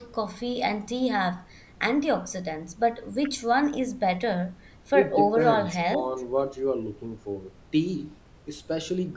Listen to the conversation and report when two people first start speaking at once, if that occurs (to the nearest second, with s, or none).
5 s